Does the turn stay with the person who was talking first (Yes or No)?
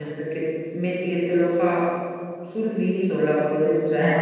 No